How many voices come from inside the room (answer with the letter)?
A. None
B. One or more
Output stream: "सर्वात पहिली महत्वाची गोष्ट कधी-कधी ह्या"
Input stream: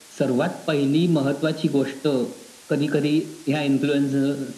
A